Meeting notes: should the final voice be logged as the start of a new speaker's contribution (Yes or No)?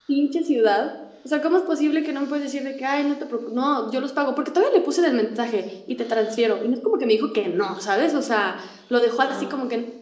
No